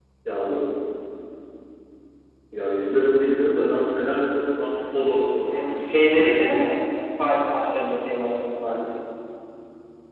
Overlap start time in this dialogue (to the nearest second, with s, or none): 5 s